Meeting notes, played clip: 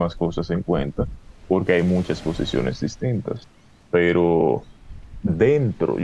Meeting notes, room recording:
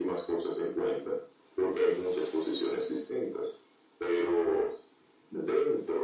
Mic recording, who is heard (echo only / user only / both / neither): echo only